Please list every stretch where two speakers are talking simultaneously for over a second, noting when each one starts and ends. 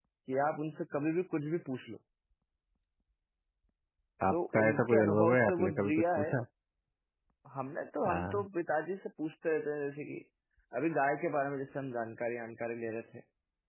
4.3-6.3

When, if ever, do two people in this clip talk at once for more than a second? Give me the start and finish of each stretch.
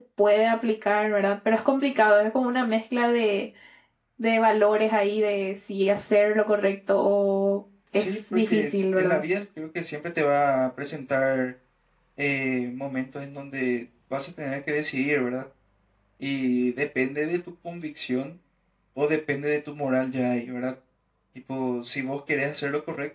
8.0-9.2

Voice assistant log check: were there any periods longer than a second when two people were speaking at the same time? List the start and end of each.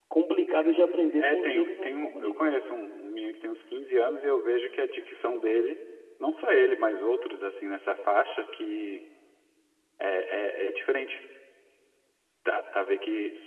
1.2-2.5

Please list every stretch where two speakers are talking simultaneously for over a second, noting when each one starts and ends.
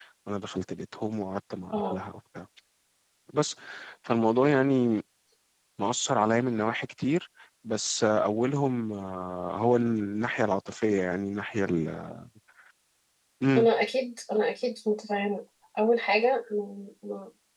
none

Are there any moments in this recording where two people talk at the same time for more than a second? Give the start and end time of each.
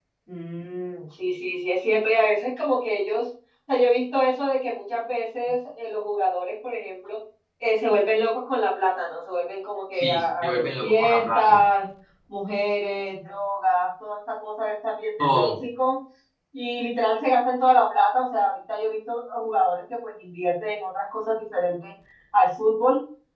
10.0-11.6

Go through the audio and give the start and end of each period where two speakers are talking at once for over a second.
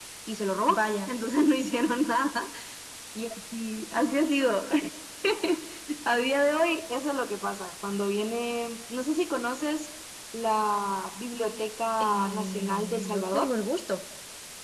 12.0-13.5

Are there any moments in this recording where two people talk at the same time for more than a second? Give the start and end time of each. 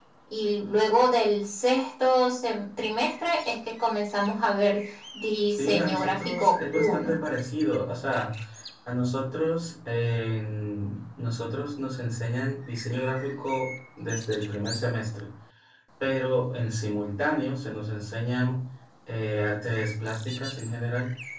5.5-7.2

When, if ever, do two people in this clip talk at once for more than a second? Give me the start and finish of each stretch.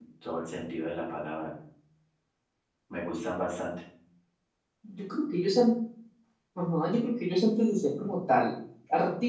none

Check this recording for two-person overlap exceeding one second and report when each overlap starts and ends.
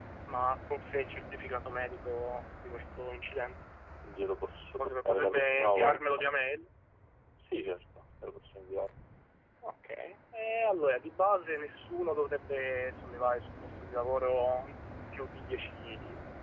4.8-6.0

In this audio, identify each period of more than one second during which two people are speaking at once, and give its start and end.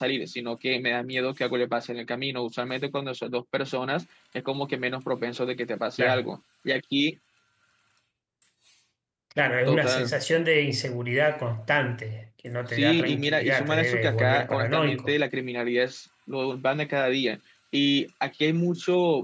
12.7-15.2

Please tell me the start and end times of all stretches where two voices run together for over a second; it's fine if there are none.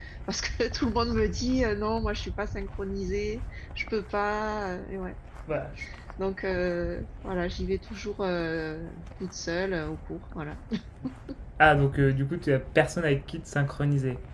none

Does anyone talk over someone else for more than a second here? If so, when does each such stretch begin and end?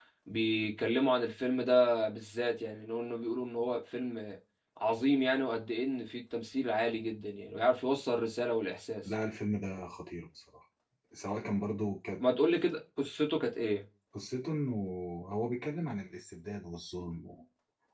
none

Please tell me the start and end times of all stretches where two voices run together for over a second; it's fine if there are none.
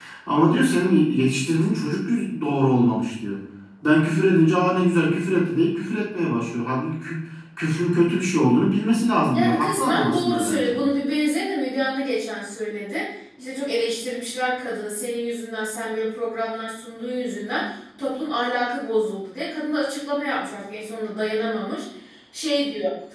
9.3-10.7

